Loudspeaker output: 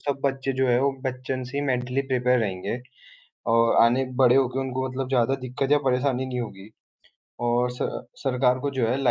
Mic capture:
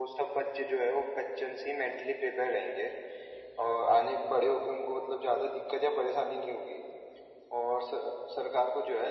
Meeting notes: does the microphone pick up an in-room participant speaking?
No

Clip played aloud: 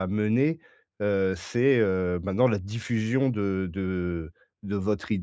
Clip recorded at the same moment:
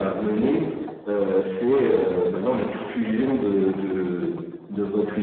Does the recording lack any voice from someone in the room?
Yes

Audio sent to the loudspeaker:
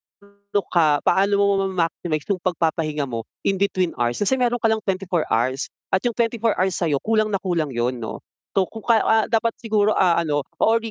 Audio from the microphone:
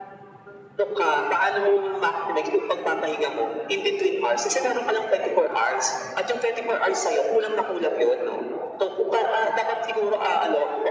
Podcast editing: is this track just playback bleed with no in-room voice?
Yes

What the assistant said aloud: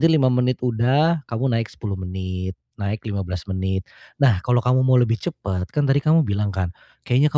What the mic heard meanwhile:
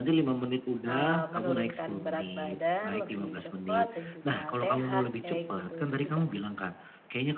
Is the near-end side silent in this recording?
No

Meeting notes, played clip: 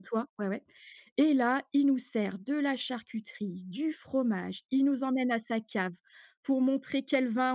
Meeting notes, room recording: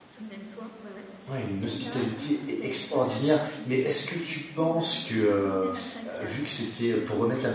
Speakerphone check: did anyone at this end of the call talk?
Yes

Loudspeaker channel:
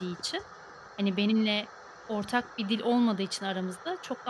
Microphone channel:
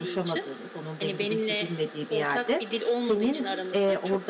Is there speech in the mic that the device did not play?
Yes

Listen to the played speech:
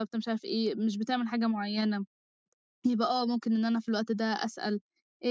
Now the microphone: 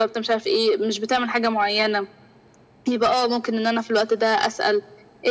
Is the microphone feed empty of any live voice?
Yes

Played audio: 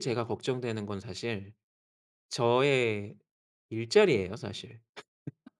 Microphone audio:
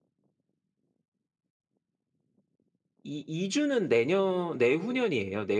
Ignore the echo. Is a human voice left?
Yes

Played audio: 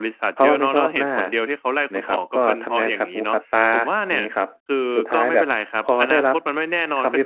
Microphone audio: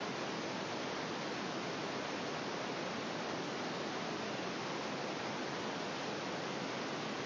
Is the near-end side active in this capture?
No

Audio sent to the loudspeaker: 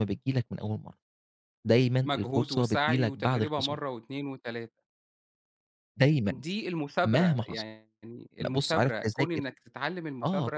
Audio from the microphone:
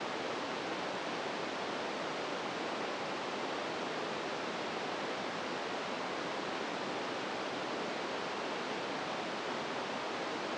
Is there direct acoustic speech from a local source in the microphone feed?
No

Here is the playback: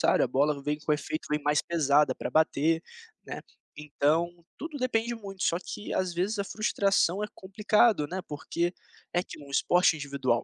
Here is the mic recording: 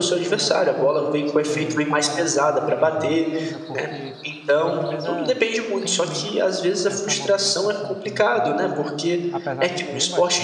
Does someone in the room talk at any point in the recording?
Yes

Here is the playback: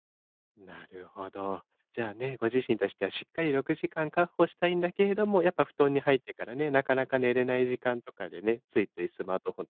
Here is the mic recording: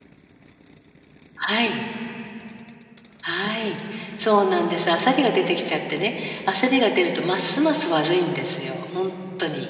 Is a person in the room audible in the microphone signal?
Yes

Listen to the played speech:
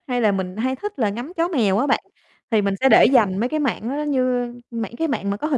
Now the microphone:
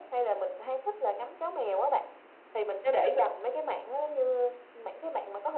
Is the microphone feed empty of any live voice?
Yes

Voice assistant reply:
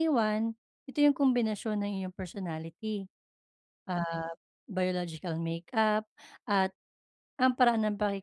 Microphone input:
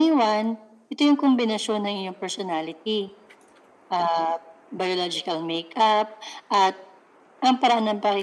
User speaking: No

